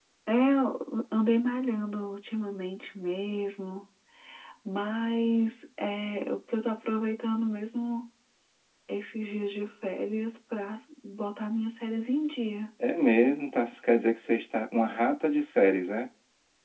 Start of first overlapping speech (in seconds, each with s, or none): none